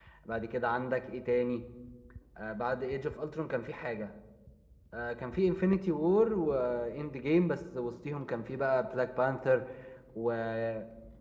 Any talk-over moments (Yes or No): No